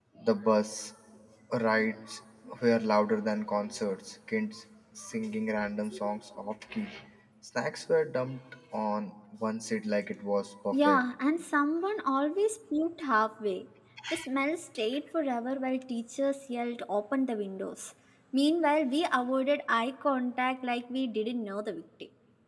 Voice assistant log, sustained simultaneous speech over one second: none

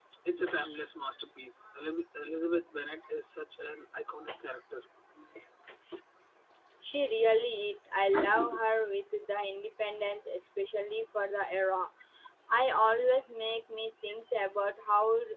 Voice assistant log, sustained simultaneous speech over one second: none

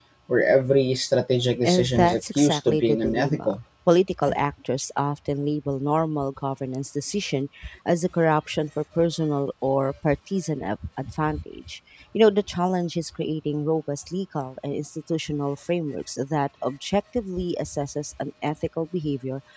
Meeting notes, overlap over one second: present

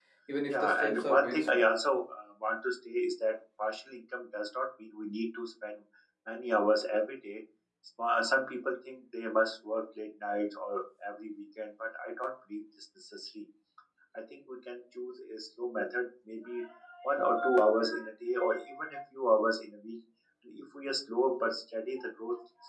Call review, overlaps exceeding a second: present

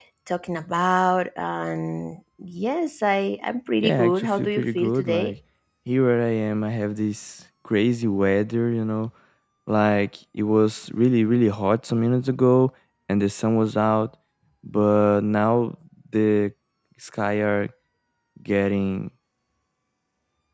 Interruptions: present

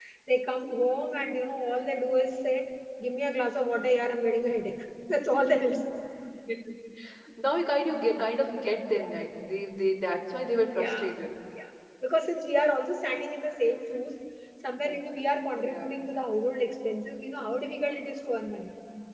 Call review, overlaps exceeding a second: none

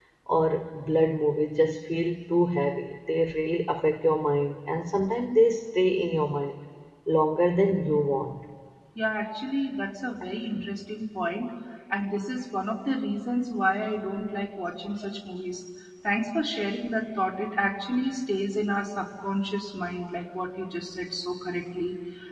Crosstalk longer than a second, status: none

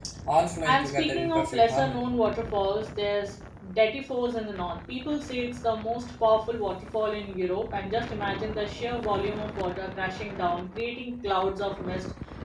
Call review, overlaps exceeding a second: present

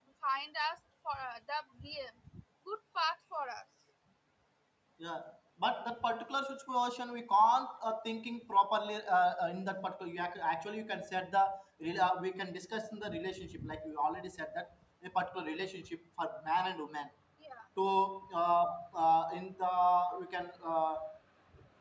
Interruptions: none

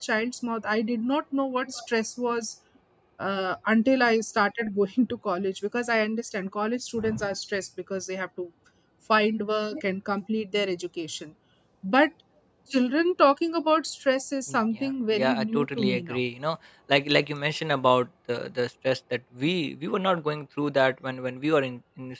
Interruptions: present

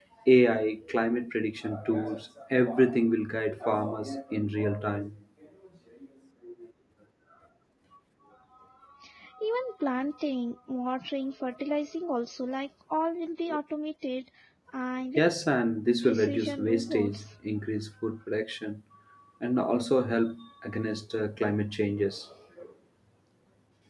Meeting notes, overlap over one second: present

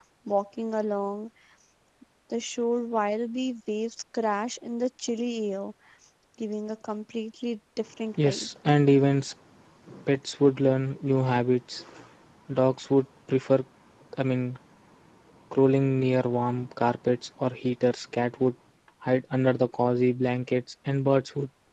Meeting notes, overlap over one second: none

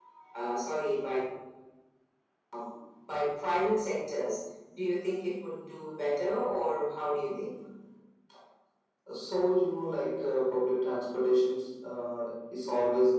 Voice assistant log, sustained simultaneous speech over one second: none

